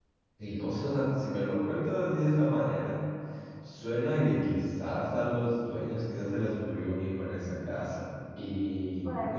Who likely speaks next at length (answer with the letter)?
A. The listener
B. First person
B